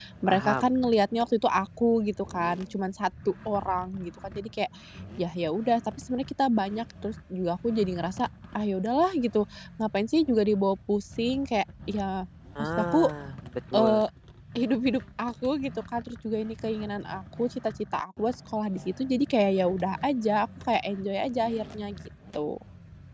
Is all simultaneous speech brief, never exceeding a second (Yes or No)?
Yes